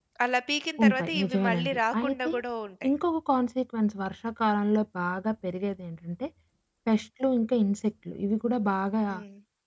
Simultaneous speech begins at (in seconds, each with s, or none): 0.8 s